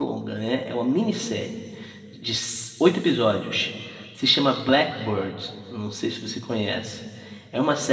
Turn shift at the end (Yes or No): No